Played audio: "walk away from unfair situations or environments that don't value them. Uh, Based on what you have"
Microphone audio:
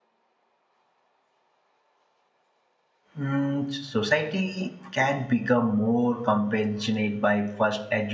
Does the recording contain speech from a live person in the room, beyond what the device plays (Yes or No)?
Yes